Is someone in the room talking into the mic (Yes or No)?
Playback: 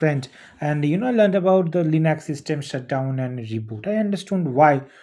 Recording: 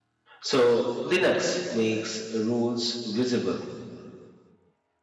Yes